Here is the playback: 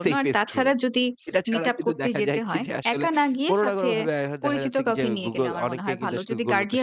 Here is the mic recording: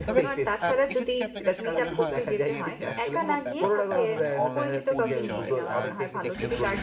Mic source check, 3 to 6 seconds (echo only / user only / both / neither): both